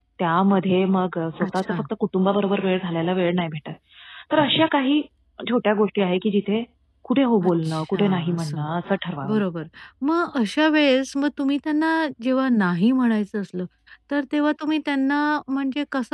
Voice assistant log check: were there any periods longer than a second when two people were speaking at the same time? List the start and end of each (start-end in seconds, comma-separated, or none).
7.5-8.7